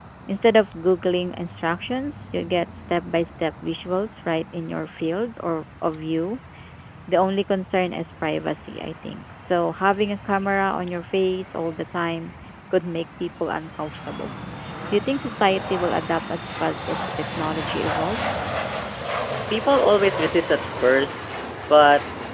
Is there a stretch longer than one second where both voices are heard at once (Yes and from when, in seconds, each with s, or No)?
No